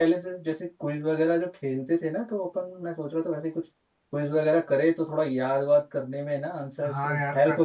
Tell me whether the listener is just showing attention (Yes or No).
No